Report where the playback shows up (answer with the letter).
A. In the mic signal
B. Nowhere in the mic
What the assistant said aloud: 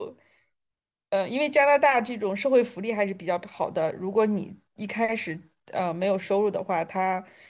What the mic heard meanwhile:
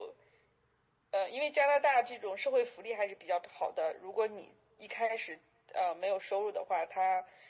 A